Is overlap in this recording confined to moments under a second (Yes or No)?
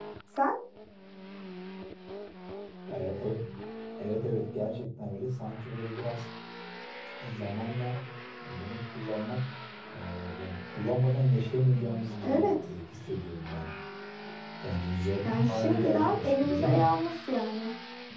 No